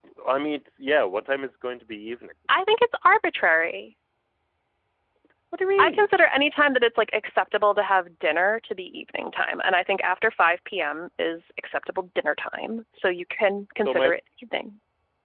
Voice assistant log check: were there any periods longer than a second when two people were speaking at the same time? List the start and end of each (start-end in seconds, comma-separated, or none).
none